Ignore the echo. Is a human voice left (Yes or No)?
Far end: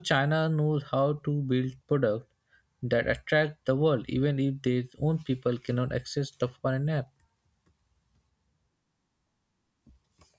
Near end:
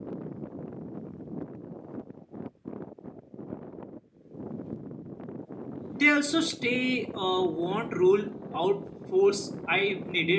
Yes